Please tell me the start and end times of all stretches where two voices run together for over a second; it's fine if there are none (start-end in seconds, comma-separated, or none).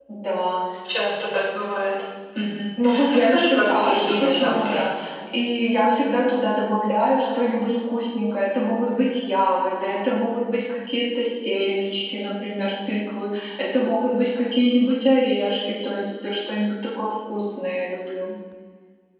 3.1-4.8